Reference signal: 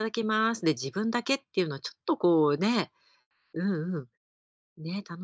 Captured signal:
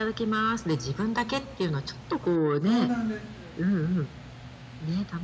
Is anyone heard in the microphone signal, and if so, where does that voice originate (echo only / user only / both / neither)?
both